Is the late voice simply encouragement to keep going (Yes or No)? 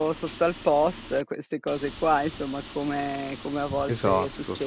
Yes